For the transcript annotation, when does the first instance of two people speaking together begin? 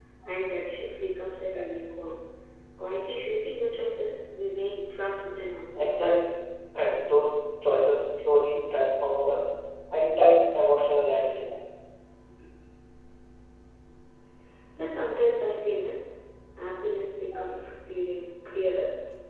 none

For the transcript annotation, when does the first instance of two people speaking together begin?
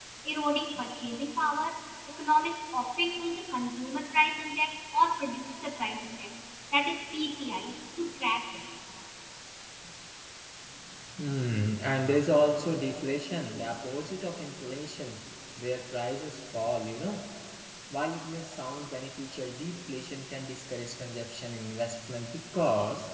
none

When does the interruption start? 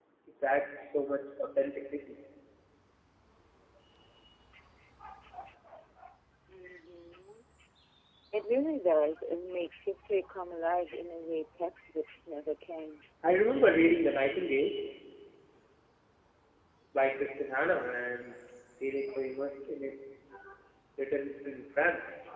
none

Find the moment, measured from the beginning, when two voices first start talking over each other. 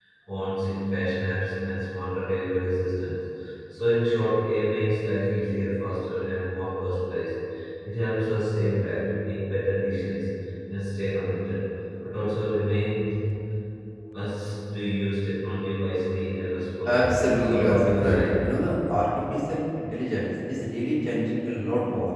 16.9 s

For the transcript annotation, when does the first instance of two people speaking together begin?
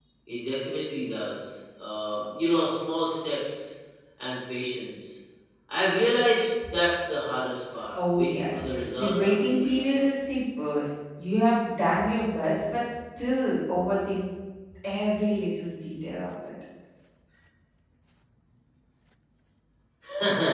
7.9 s

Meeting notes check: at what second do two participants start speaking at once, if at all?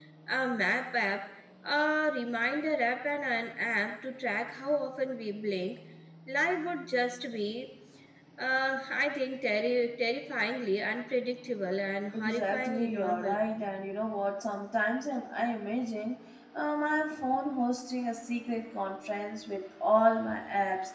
12.1 s

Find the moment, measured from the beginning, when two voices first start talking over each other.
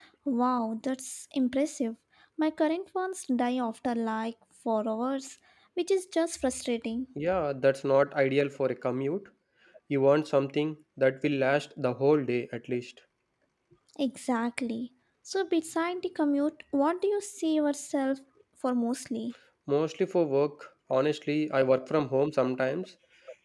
none

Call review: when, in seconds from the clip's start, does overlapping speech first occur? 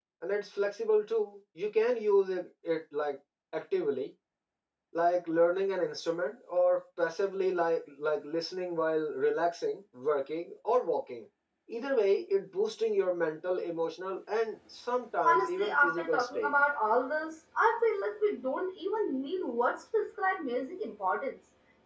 15.2 s

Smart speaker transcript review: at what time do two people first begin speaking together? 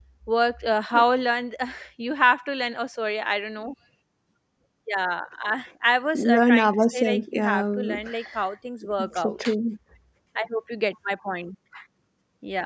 6.1 s

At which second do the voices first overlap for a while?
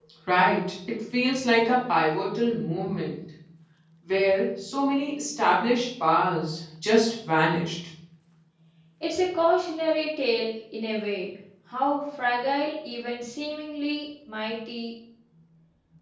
none

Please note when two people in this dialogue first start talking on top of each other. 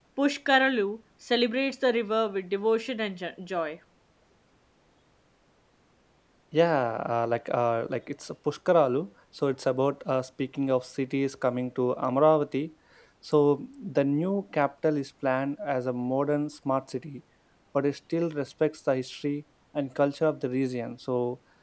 none

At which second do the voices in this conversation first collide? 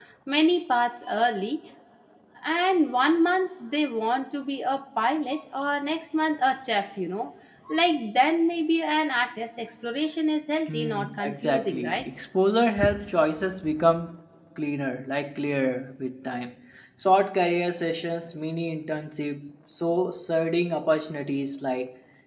10.7 s

